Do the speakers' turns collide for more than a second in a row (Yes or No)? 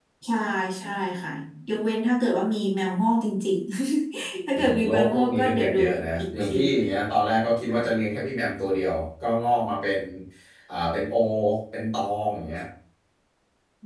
Yes